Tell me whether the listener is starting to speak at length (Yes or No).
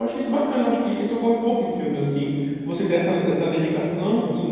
No